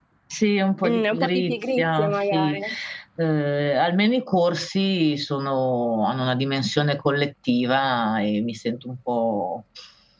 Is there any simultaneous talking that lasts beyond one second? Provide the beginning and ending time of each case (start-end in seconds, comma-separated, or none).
0.8-2.6